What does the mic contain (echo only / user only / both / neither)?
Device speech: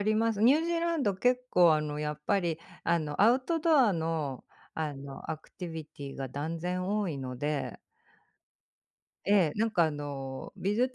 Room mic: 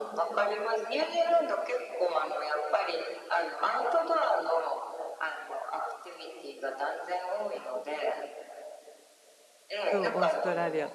both